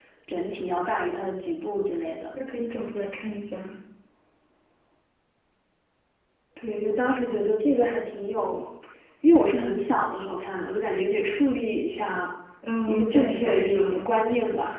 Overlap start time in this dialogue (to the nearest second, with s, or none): 13 s